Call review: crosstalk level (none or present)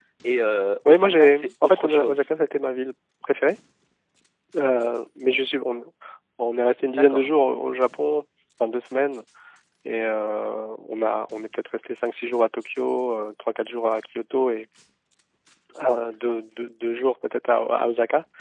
present